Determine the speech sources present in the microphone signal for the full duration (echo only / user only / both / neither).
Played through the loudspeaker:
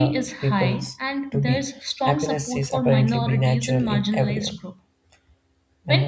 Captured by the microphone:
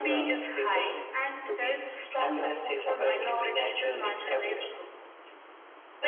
echo only